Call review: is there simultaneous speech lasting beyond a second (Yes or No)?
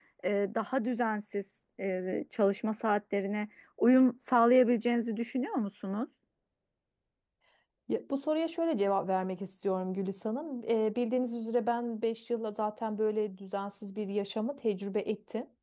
No